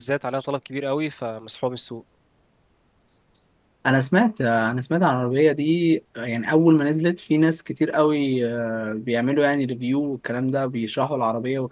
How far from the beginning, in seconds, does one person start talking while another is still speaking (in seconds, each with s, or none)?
none